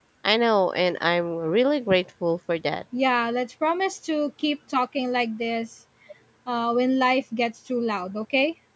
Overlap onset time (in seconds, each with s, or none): none